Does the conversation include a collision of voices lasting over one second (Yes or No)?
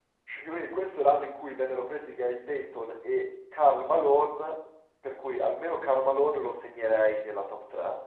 No